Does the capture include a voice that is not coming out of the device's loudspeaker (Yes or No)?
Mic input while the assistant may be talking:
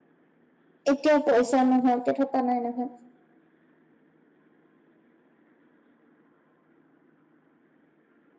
Yes